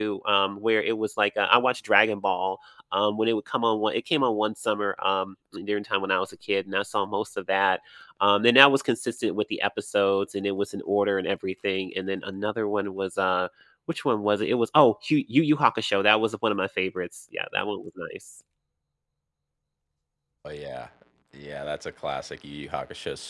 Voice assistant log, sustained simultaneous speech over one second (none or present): none